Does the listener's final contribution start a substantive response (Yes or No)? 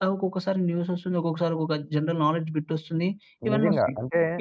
Yes